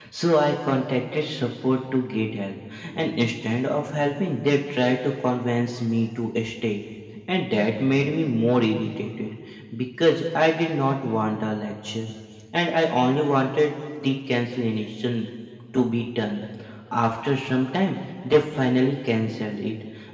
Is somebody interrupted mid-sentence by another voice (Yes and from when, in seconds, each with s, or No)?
No